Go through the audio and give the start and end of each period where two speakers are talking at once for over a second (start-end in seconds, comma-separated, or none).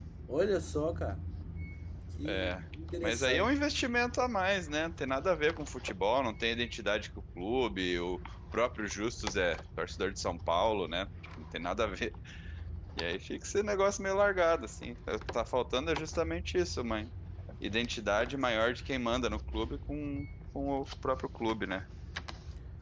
none